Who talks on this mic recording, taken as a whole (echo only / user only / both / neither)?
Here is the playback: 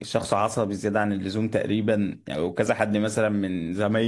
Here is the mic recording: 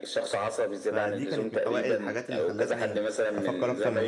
both